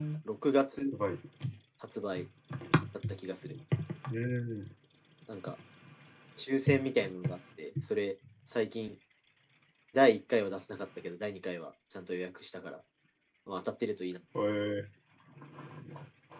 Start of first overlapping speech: none

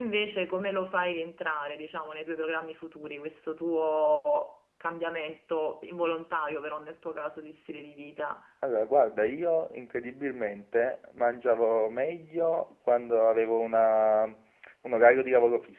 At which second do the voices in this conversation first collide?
none

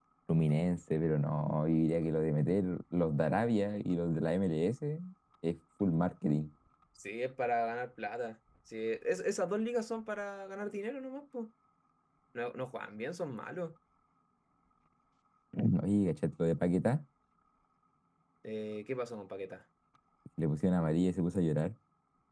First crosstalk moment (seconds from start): none

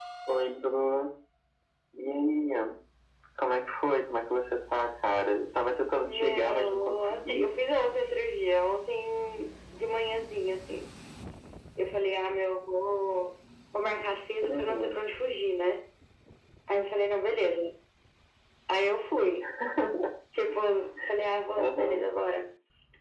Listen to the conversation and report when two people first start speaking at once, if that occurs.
6.1 s

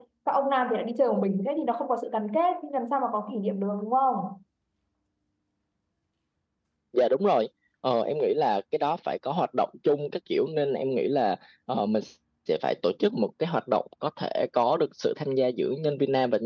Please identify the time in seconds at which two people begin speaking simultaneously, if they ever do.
none

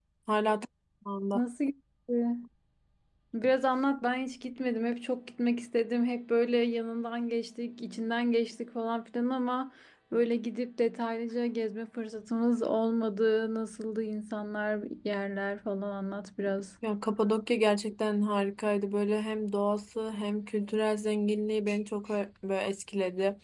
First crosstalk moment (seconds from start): none

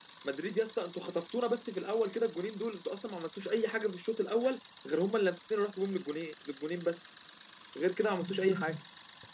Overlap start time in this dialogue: none

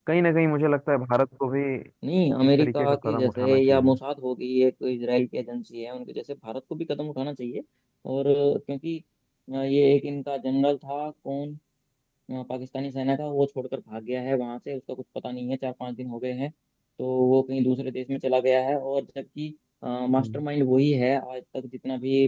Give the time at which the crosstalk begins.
2.4 s

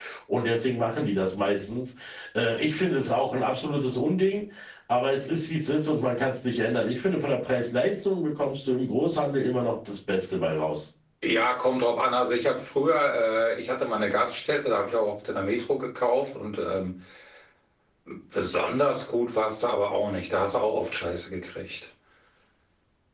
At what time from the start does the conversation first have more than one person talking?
none

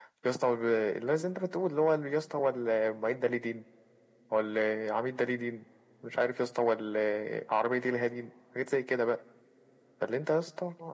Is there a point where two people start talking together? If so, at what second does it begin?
none

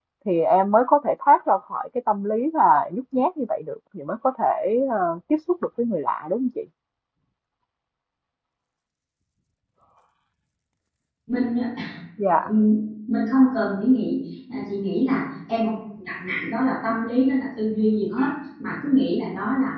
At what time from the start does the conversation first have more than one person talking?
none

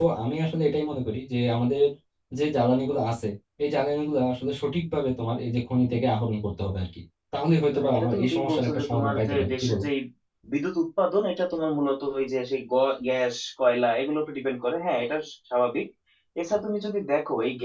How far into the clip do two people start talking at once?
7.7 s

